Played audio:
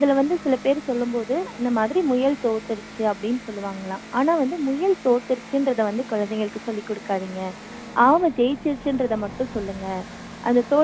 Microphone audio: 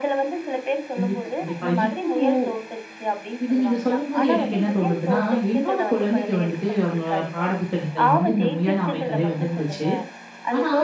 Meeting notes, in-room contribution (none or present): present